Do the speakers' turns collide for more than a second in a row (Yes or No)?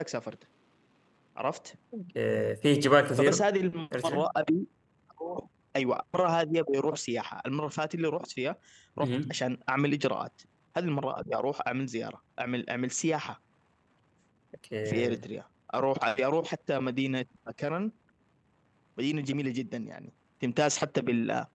No